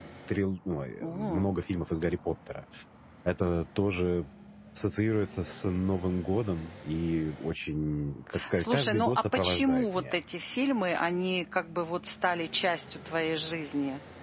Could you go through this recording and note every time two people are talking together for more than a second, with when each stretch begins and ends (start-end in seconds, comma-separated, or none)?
8.6-10.2